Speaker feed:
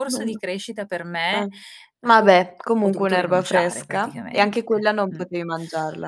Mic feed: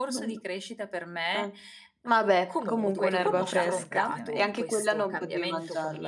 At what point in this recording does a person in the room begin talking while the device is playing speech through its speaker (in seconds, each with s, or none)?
2.5 s